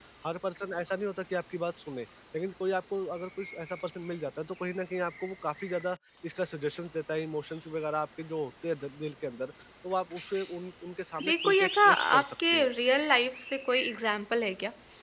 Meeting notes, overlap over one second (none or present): present